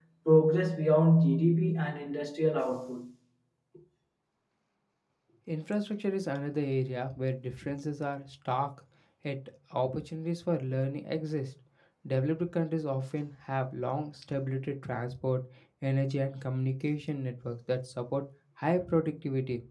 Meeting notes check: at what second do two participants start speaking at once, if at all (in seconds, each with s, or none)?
none